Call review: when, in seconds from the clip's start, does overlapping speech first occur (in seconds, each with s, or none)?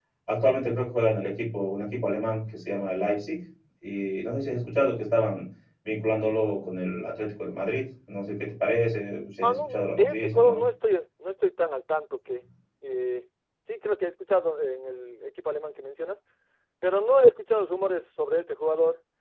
9.4 s